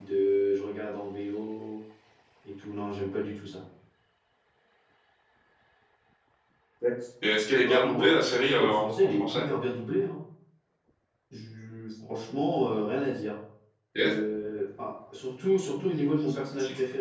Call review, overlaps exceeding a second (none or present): present